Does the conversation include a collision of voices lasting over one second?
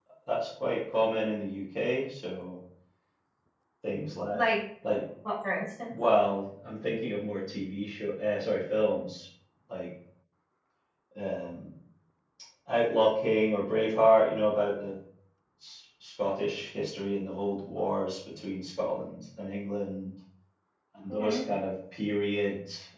No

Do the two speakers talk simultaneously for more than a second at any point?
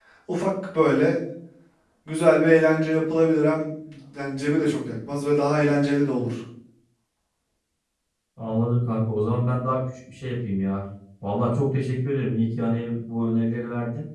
No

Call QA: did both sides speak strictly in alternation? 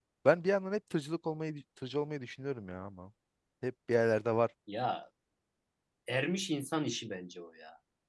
Yes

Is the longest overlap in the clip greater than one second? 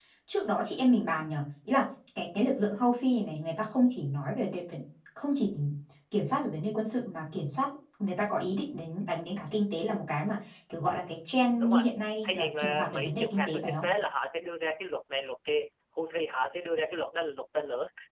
Yes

